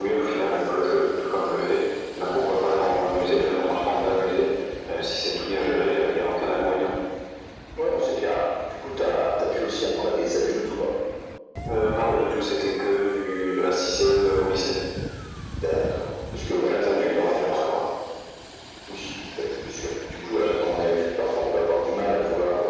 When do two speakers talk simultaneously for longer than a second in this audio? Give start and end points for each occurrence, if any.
16.5-17.8

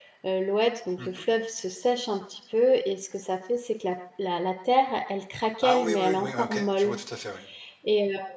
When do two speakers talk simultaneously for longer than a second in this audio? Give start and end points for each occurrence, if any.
5.6-7.0

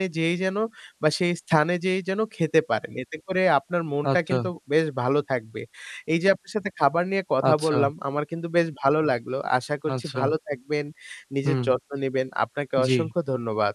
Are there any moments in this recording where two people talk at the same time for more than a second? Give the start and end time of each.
none

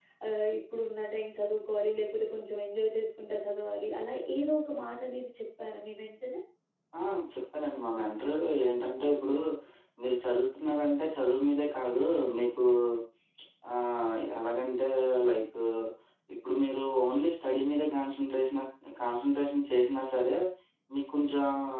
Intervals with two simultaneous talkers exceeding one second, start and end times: none

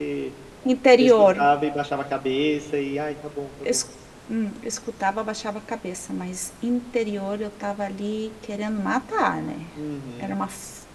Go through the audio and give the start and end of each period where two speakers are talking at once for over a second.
none

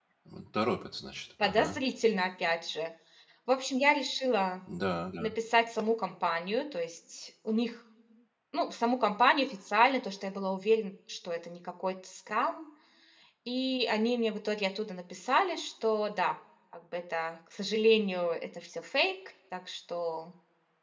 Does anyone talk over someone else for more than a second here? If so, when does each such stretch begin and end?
none

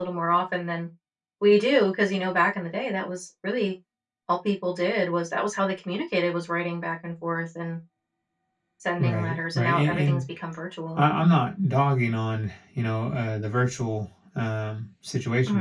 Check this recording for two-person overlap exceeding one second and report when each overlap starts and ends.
9.0-10.2

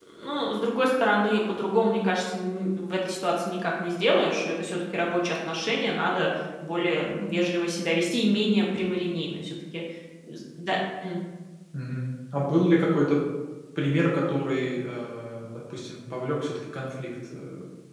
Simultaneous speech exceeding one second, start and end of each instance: none

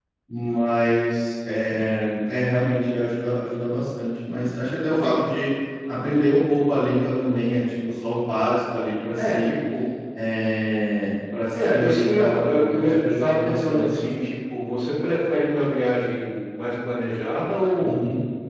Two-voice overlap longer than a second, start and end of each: 11.5-14.1

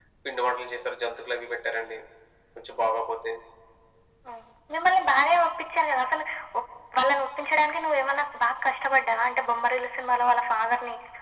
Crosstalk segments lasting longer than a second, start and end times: none

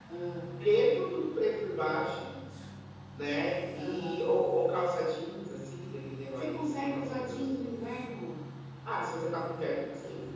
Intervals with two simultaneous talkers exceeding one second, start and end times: 6.3-7.6

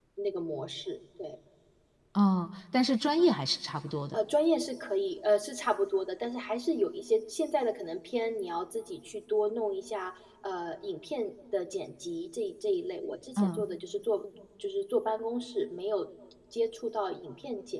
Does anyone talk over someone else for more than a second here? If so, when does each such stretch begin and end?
none

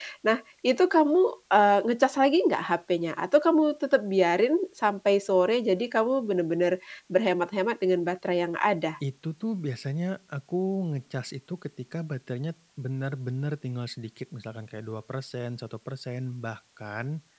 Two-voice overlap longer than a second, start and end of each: none

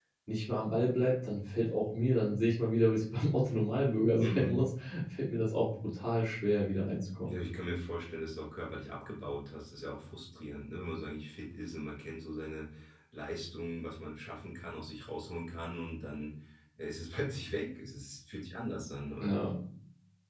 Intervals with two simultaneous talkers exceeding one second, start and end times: none

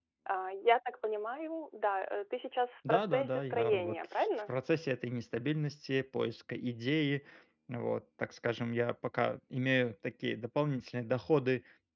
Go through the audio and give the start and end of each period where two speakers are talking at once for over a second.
2.9-4.5

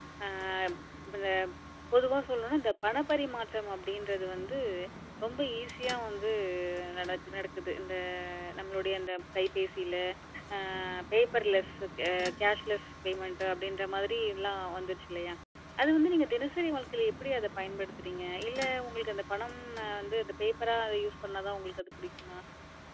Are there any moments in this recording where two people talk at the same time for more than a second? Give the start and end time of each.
none

